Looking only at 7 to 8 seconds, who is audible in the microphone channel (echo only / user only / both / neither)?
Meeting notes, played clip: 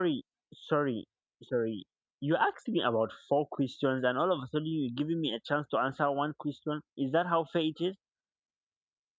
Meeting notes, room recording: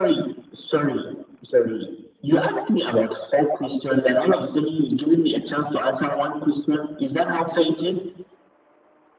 echo only